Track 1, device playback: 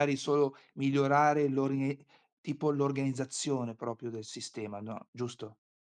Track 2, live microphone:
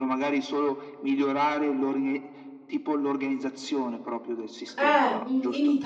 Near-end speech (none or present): present